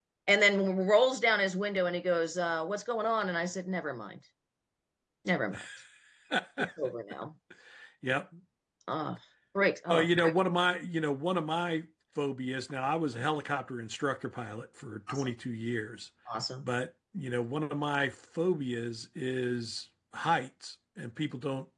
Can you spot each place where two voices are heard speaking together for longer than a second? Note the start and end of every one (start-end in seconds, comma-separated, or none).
none